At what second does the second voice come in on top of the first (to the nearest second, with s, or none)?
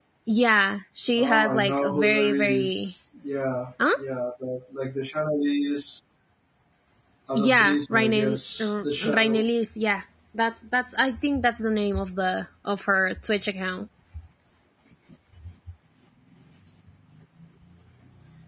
1 s